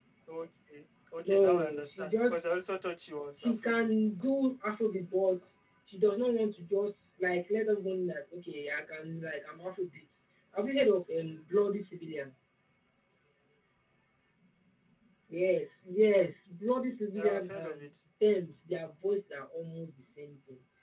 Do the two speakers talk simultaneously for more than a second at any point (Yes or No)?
Yes